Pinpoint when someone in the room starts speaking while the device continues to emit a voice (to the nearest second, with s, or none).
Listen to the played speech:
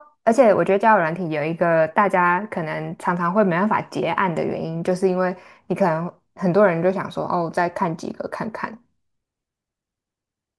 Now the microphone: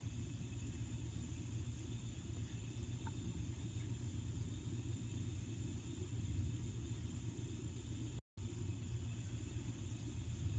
none